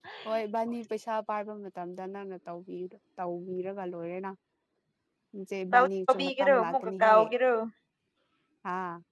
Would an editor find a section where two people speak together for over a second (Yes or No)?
Yes